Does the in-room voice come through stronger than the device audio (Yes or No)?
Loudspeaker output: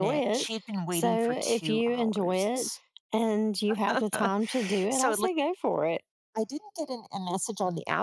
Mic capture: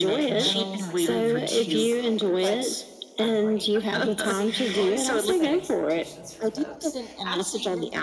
No